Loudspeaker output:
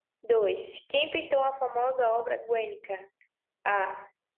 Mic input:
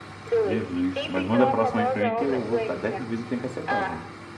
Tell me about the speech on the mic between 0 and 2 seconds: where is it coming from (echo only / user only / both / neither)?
both